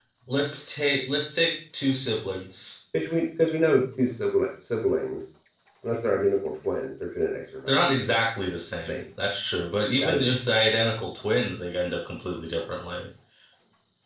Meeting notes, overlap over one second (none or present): none